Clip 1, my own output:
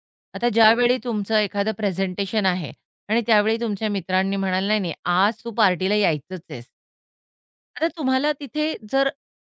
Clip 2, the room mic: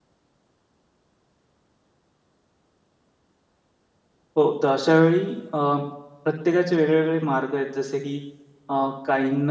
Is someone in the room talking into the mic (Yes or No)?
Yes